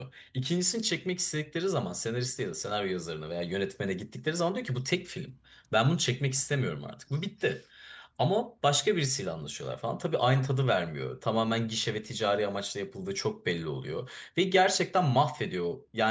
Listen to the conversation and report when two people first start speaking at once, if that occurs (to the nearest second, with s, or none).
none